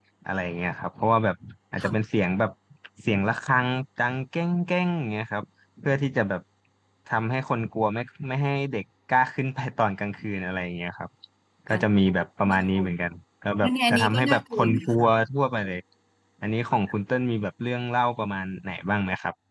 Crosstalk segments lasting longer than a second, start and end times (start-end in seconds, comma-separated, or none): 13.6-15.1